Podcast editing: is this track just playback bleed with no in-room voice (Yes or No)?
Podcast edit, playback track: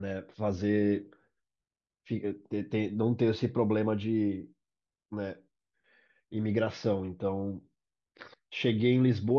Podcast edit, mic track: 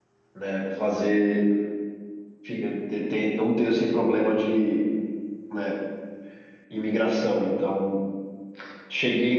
Yes